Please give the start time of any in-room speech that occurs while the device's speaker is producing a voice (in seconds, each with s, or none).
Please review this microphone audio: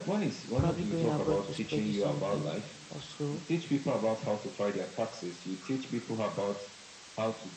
0.5 s